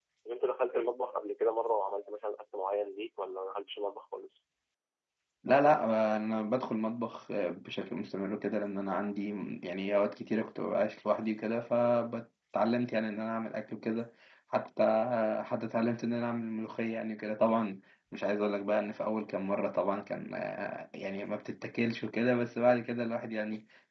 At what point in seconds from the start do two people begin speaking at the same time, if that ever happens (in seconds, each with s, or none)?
none